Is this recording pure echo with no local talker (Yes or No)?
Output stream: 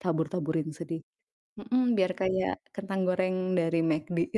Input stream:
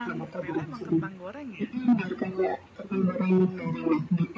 No